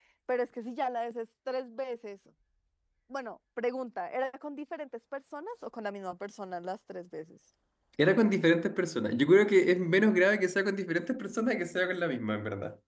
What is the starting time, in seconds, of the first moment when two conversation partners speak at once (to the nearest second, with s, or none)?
none